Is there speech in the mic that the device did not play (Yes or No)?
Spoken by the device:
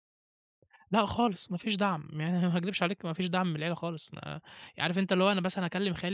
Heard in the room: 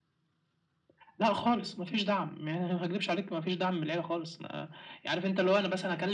No